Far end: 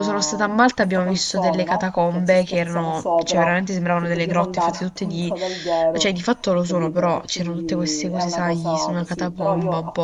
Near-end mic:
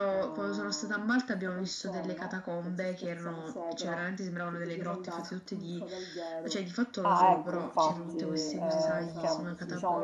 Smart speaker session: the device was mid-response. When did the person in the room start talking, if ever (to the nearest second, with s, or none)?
7 s